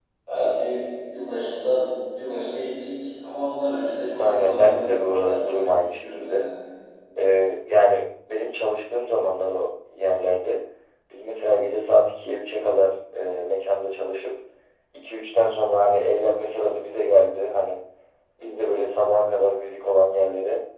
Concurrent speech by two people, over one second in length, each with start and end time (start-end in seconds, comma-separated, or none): 4.2-6.5